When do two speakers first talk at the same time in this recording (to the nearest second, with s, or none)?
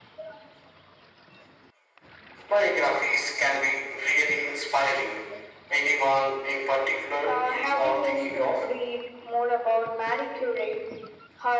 7 s